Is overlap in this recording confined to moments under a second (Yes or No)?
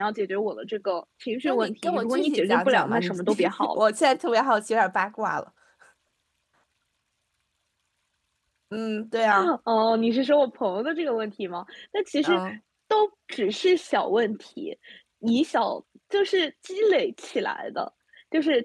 No